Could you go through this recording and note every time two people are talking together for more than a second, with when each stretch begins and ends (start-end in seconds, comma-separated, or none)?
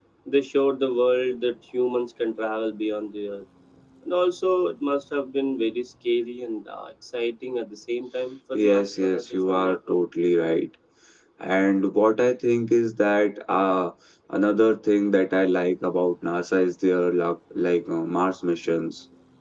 8.5-10.0